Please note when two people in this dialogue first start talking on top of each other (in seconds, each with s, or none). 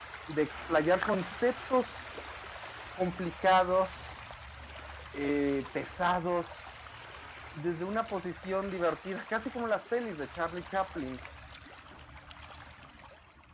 none